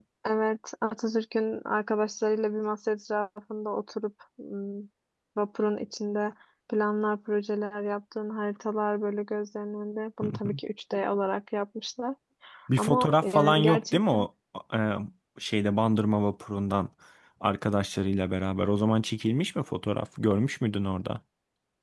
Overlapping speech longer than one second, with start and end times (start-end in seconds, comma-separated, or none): 12.8-14.0